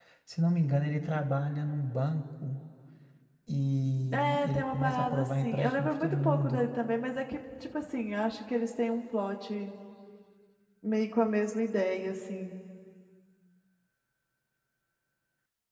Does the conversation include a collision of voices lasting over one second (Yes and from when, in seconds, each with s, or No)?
Yes, from 4.1 s